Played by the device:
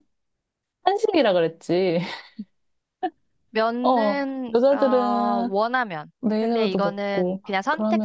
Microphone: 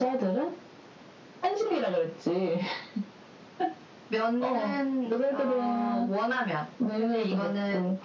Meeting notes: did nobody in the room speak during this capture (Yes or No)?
Yes